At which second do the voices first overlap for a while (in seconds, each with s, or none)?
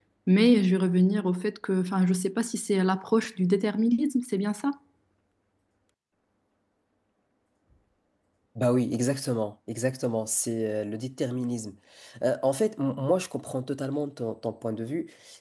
none